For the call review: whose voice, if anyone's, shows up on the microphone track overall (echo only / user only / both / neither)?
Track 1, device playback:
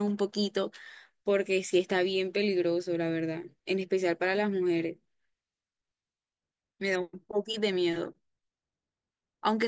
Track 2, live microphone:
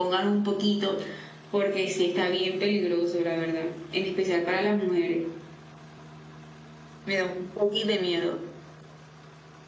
echo only